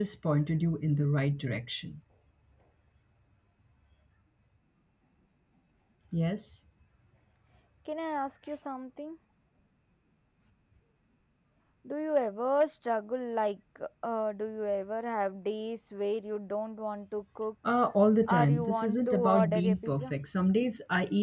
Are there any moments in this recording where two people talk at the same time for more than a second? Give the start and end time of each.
18.3-20.1

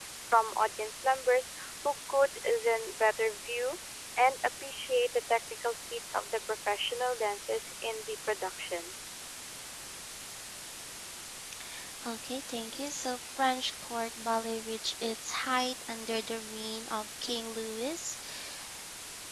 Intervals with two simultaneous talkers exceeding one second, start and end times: none

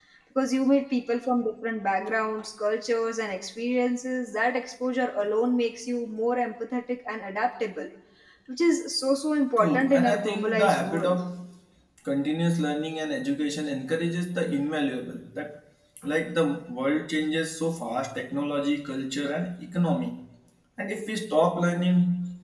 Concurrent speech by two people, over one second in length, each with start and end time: 9.6-11.2

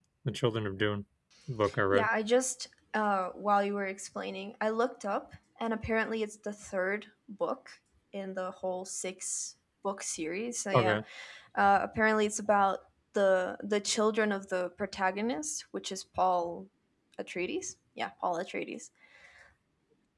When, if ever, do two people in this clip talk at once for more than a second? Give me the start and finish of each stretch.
none

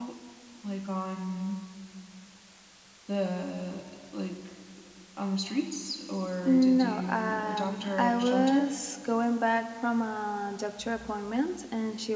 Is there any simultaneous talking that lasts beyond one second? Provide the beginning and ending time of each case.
6.5-8.7

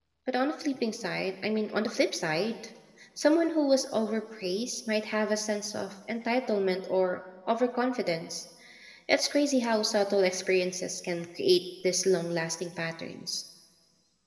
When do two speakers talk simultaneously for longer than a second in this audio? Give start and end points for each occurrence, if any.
none

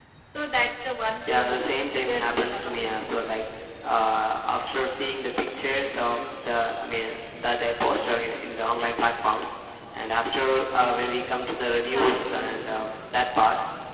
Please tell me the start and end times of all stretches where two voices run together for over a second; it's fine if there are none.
1.3-2.8

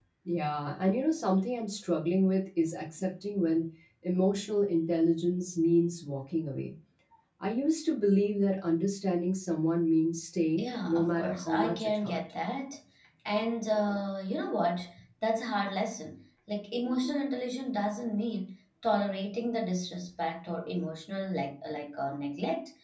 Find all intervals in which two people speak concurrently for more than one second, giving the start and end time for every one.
10.6-12.2

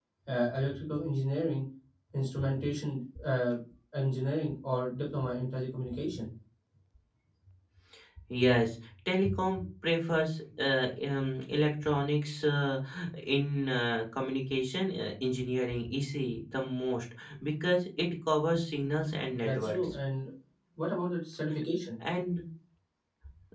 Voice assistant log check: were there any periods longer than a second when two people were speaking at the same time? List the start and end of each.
none

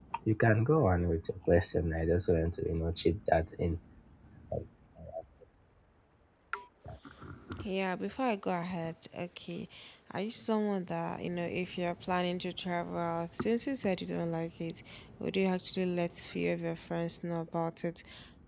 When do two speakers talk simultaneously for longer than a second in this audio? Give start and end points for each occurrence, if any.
none

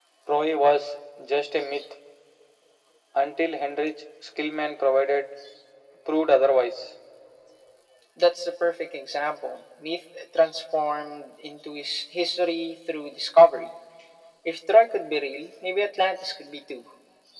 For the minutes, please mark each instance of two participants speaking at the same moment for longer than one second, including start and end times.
none

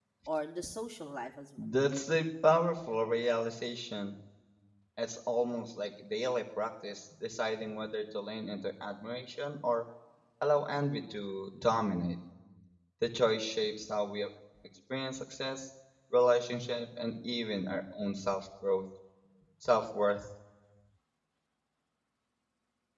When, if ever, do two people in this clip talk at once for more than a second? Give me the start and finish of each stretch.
none

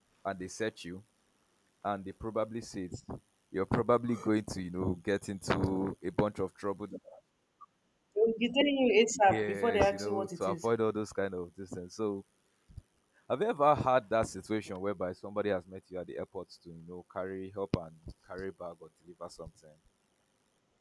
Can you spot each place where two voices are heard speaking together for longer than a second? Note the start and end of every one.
9.3-10.7

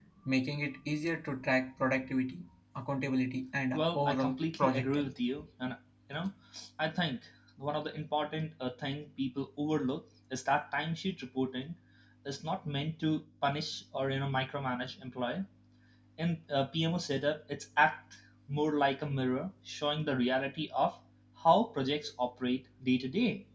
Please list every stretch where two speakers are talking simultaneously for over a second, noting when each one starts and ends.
3.7-5.1

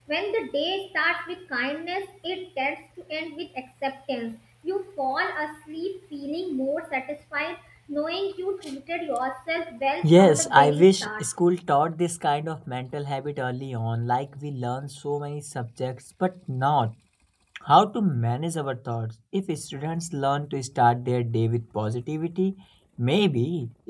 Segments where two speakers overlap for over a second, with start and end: 10.0-11.2

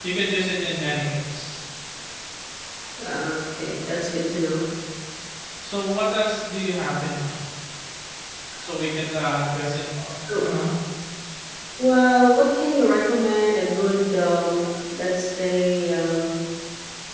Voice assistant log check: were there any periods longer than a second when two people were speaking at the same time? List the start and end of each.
none

